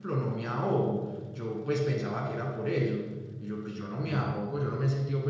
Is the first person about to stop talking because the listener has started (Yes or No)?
No